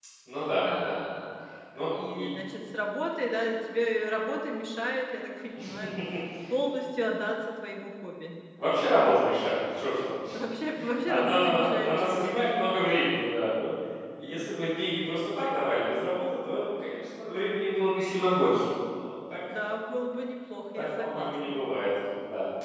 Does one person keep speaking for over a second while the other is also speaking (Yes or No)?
Yes